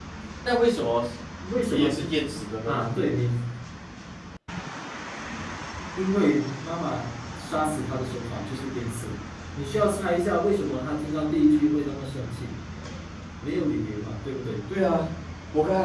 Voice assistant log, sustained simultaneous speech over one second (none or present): none